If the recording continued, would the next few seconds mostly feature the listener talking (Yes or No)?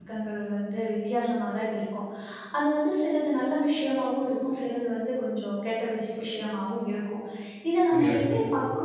No